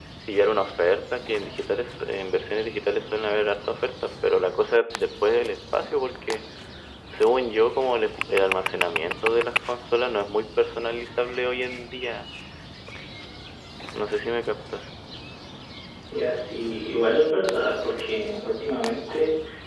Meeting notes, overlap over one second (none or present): none